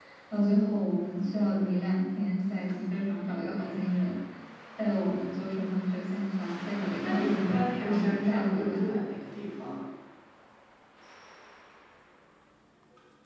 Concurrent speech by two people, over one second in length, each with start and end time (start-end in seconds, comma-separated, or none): 7.0-8.9